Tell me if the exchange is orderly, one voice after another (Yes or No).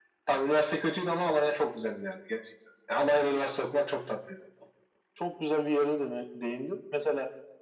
Yes